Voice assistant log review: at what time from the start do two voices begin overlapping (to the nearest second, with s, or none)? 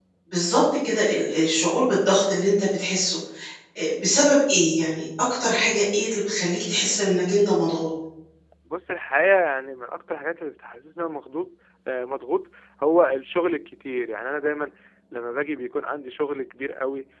none